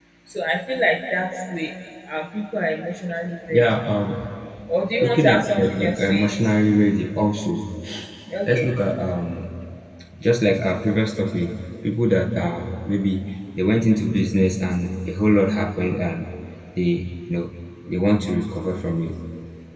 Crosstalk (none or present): present